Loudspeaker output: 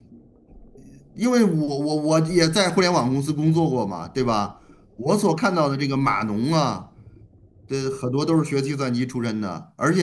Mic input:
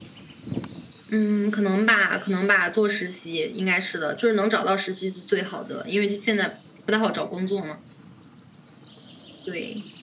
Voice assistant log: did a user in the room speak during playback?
Yes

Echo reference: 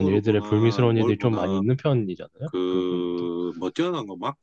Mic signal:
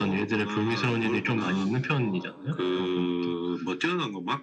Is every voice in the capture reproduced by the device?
No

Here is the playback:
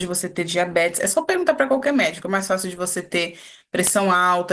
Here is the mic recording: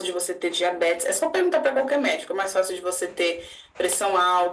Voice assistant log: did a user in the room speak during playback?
No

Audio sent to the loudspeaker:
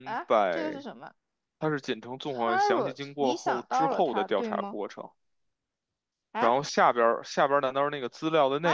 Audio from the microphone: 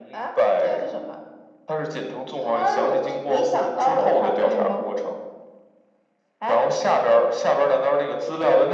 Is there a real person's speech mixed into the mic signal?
No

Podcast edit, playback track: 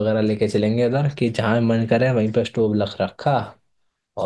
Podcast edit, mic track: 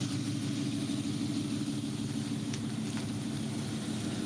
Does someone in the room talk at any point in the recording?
No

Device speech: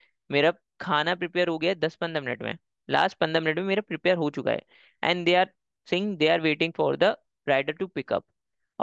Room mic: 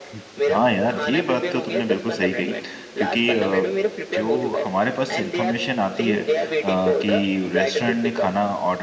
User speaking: Yes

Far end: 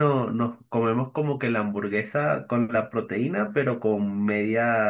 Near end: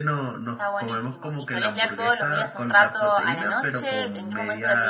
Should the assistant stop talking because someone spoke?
Yes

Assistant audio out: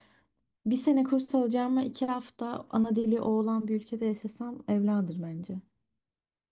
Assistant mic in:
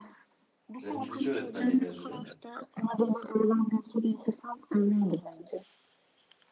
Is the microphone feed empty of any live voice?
No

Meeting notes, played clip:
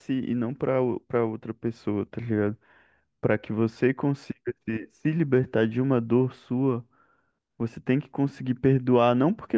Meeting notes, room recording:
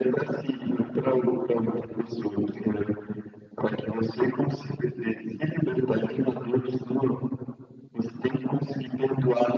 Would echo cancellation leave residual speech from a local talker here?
No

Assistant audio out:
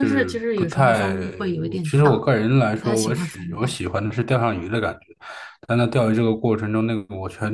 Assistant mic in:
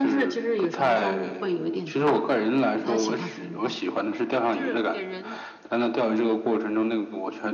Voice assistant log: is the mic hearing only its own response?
No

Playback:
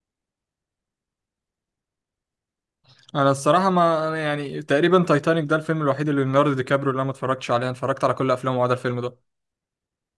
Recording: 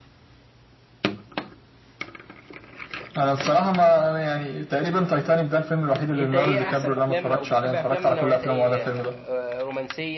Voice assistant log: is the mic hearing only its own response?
No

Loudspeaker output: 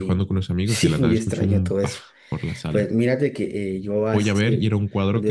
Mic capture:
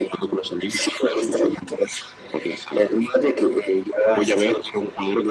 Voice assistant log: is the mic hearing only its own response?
Yes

